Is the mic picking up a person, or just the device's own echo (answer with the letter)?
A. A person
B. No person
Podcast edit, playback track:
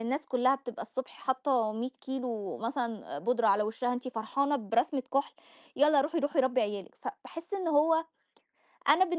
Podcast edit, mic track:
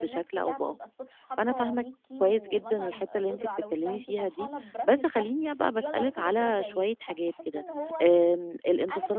A